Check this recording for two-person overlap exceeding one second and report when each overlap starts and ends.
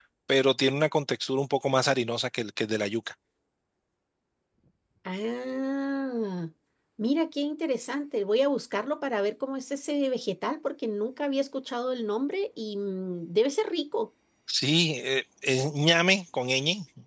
none

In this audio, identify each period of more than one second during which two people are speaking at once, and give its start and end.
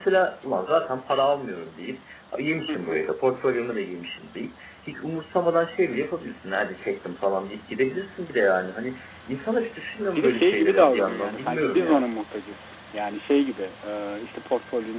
10.2-12.1

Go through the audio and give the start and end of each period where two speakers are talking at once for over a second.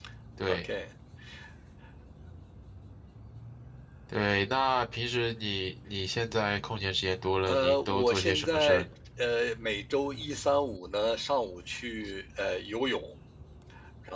7.5-8.8

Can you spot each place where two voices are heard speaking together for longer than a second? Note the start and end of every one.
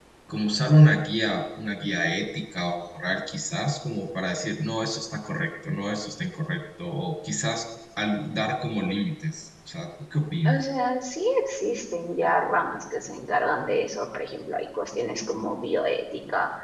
none

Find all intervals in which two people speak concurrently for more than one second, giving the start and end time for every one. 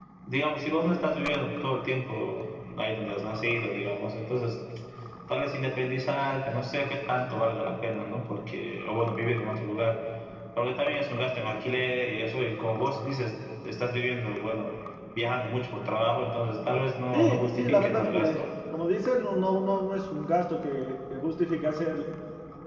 17.1-18.4

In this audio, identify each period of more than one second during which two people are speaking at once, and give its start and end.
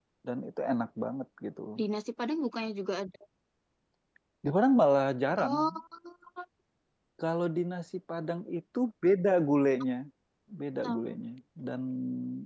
none

